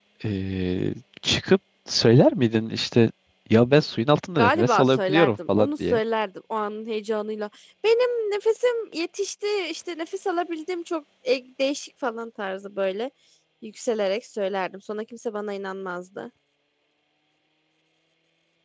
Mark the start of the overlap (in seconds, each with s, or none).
4.4 s